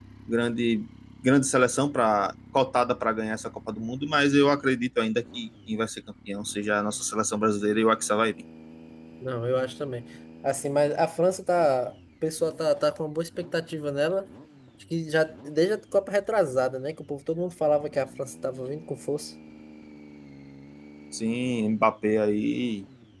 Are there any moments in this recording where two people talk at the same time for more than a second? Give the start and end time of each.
none

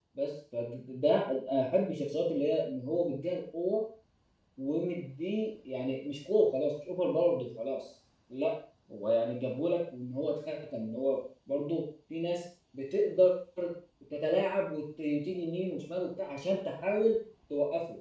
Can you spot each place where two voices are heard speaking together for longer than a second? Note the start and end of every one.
none

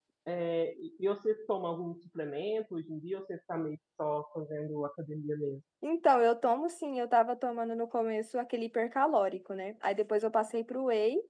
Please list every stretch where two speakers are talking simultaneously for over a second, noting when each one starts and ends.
none

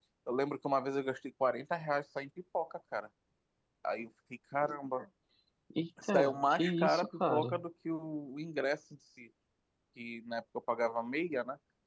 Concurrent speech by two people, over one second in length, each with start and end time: 6.1-7.6

